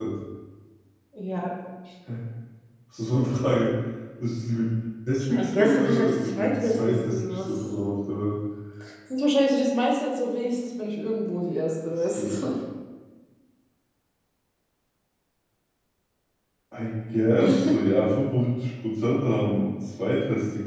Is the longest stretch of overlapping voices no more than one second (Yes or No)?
No